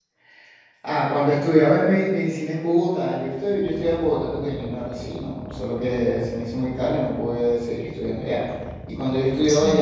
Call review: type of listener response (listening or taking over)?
listening